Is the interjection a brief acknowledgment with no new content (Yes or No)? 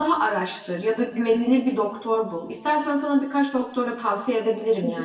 No